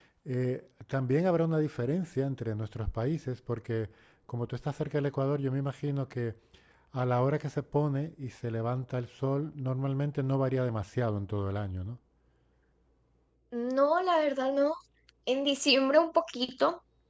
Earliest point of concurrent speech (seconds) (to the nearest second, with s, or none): none